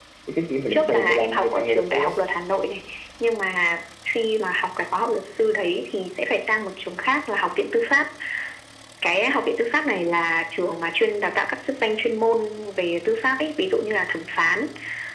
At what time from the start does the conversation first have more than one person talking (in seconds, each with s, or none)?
0.7 s